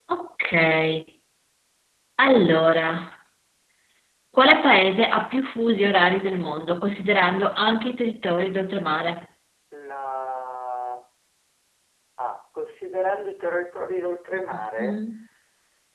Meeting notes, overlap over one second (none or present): none